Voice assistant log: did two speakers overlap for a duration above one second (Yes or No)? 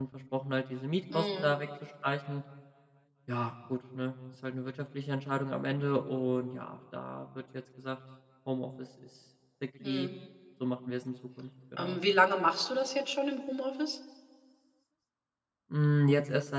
No